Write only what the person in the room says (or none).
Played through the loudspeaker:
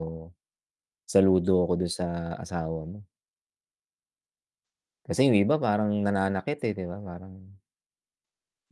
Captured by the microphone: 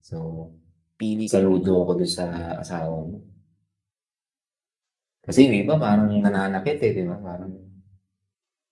Pili ka ng iba, sige.